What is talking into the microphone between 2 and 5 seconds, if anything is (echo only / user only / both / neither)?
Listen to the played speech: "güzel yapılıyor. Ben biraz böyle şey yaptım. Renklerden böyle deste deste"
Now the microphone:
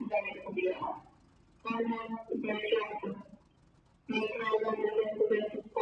echo only